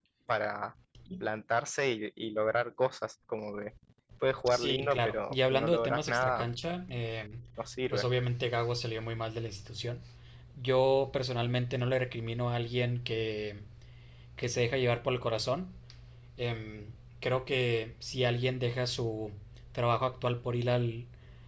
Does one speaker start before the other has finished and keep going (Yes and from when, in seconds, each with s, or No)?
Yes, from 4.5 s